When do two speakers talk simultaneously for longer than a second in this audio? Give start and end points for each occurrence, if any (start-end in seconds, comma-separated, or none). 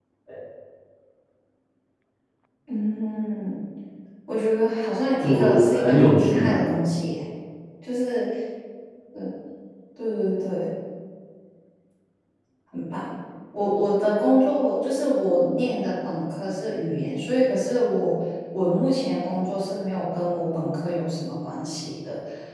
5.2-6.5